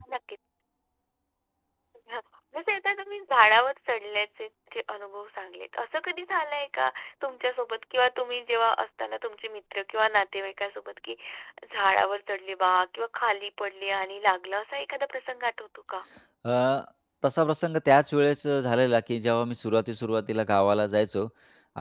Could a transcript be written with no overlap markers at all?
Yes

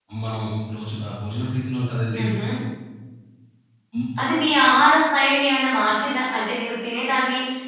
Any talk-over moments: No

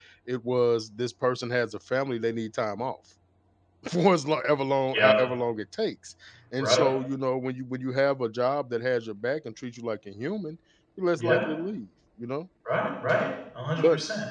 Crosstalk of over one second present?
No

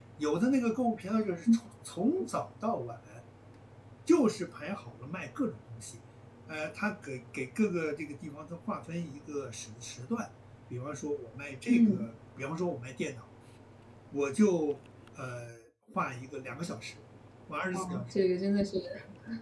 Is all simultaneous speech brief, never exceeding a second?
Yes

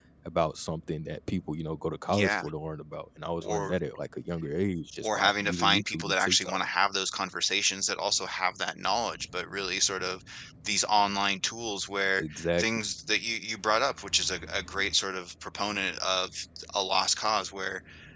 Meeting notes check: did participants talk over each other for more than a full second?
Yes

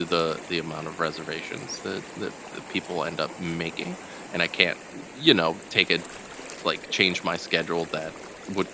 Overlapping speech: No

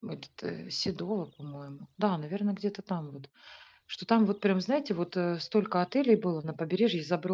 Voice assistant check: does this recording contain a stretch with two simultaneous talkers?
No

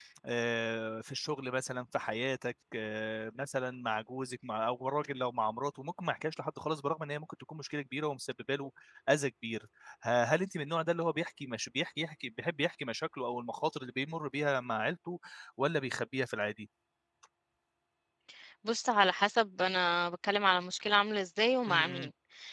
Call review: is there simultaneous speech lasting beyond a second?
No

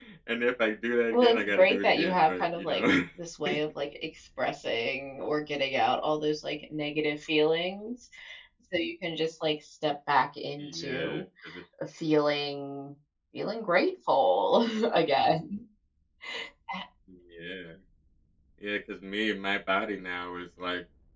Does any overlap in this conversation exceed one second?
Yes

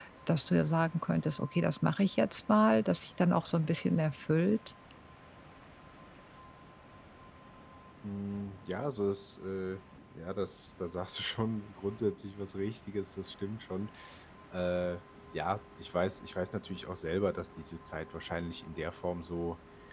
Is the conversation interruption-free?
Yes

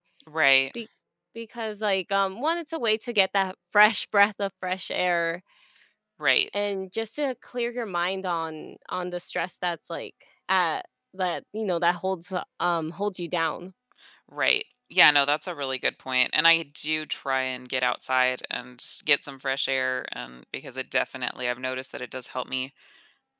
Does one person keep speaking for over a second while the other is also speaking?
No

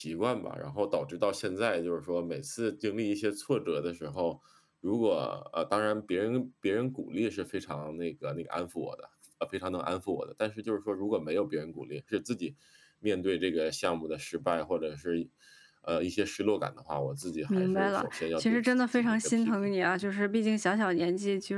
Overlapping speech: Yes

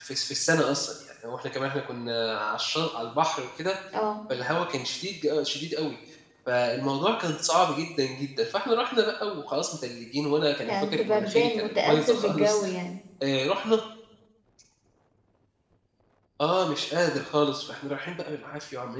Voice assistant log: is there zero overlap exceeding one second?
No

